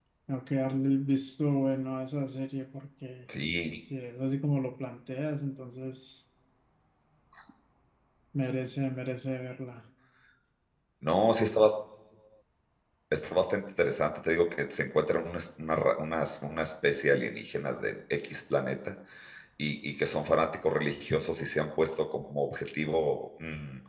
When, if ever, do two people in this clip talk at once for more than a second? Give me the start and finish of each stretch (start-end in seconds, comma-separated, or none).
none